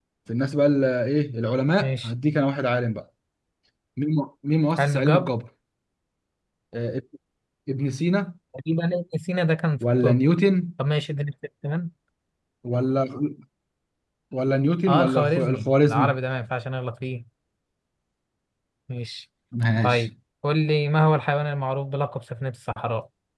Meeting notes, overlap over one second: present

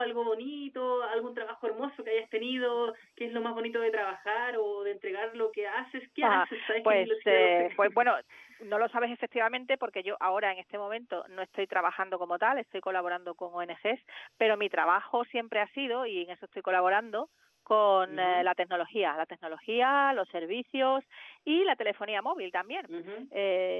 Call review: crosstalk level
present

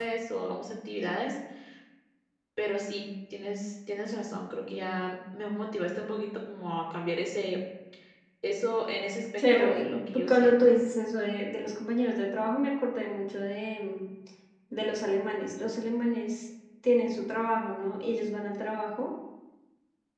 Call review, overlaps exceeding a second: present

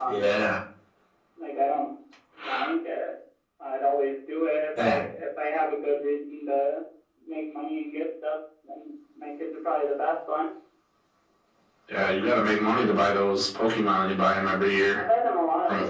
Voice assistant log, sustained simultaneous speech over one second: none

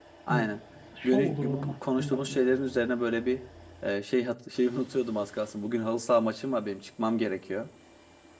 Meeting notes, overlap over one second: present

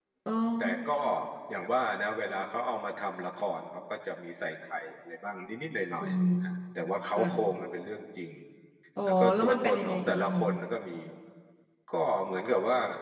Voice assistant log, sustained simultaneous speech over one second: present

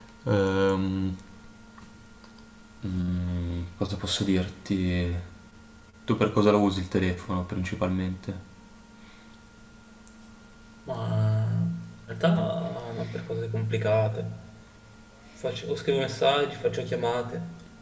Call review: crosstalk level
none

